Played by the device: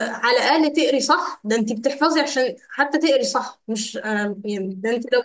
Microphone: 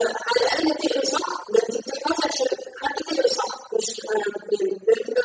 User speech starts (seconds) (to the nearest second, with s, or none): none